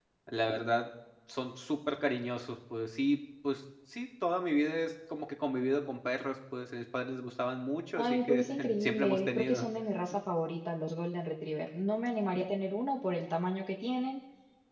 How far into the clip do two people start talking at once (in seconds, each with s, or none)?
8.0 s